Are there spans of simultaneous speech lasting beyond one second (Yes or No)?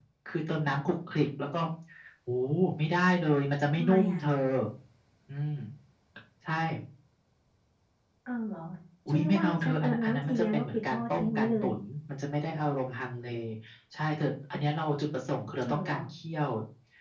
Yes